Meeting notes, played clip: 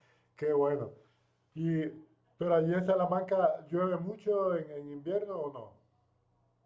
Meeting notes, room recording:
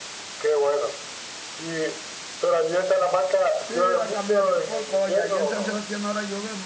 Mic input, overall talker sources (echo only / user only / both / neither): both